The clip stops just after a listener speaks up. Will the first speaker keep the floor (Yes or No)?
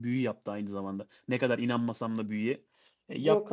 Yes